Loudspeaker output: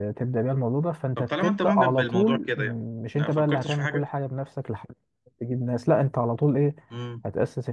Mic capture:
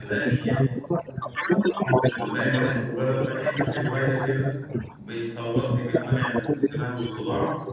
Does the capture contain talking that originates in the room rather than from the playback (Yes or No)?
Yes